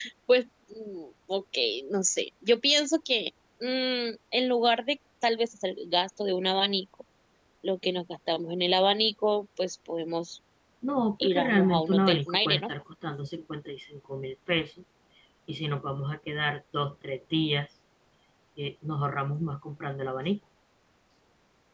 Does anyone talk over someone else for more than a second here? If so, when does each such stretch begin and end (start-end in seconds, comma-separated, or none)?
11.2-12.7